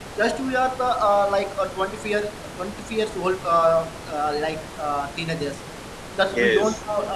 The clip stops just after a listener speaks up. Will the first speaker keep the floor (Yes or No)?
Yes